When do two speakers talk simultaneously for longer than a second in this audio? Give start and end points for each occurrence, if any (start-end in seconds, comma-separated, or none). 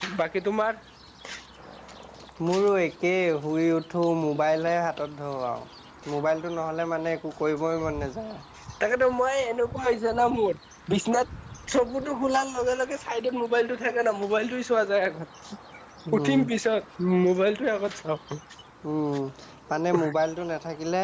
none